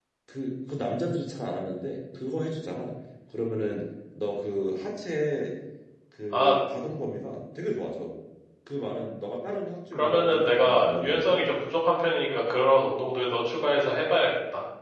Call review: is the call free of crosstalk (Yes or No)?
No